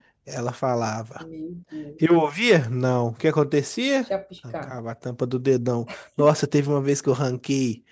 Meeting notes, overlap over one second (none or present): none